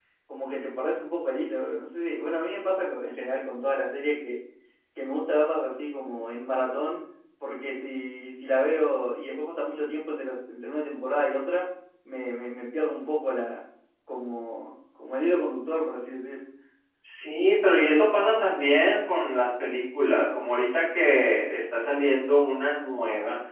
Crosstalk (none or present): none